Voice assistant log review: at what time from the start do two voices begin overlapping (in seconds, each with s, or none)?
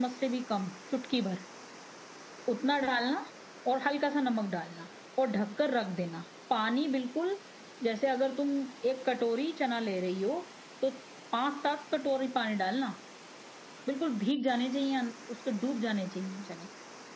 none